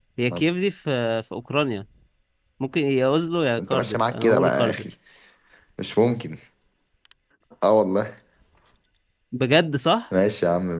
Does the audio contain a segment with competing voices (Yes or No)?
Yes